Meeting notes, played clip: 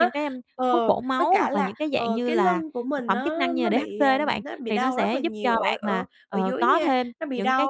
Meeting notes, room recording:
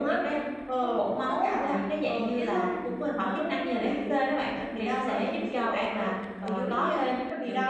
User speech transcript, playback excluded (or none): none